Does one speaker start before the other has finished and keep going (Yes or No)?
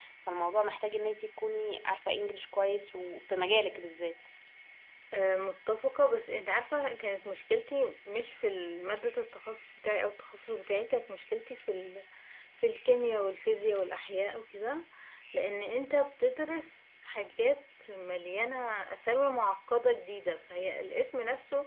No